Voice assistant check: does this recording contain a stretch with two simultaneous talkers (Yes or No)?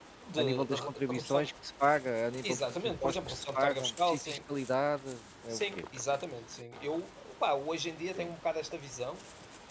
Yes